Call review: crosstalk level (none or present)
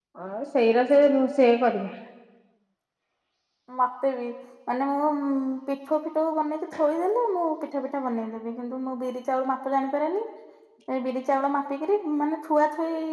none